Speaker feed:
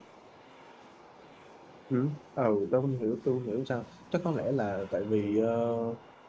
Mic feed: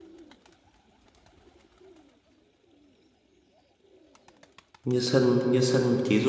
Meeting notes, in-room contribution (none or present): present